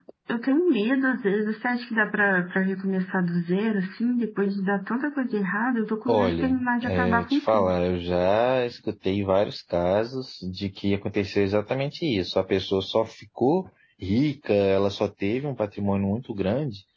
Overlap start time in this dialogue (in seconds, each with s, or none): 6.1 s